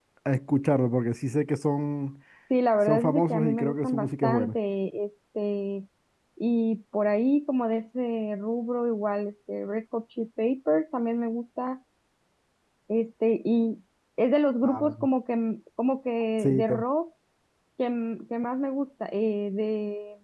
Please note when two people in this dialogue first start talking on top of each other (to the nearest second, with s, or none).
3 s